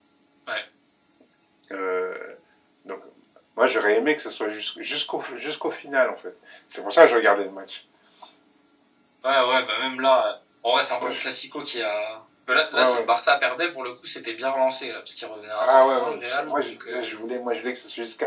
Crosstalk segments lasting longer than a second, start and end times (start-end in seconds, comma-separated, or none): 15.6-17.1